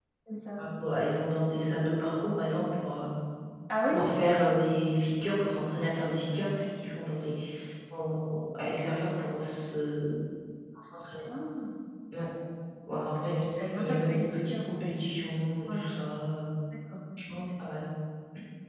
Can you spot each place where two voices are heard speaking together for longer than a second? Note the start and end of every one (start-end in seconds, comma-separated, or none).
13.4-15.2